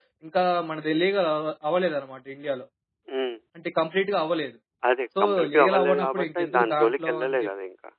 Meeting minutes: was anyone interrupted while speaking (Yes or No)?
Yes